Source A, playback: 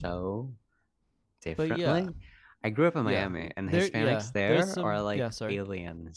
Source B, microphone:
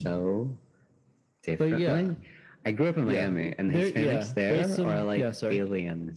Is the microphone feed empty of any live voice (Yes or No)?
Yes